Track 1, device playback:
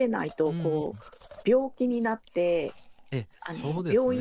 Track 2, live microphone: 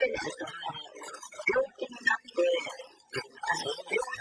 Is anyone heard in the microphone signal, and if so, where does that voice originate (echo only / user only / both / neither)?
echo only